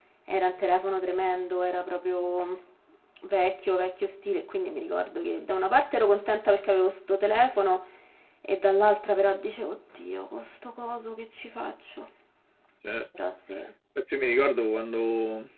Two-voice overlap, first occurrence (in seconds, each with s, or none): none